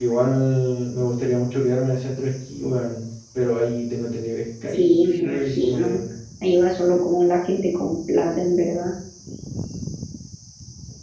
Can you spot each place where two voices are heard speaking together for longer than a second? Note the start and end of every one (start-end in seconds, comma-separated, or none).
4.8-6.0